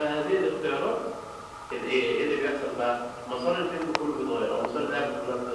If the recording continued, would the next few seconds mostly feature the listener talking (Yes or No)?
No